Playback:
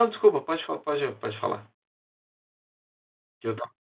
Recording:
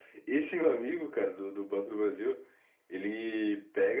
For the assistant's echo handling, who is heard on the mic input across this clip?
user only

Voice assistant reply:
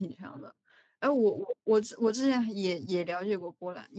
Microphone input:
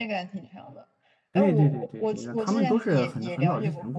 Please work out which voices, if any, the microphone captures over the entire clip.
both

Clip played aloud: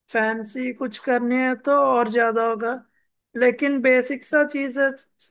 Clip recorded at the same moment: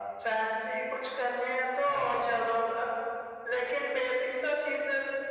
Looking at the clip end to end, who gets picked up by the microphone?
echo only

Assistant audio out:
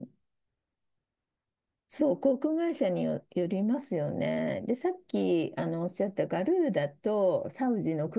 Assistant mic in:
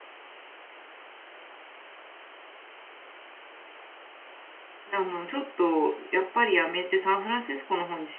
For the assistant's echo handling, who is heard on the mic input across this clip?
user only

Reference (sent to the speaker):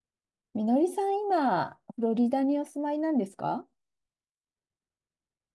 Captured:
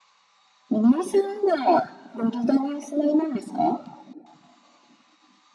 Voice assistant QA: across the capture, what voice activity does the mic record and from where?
echo only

